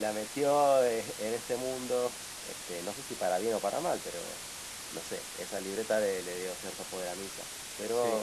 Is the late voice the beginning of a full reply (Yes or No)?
Yes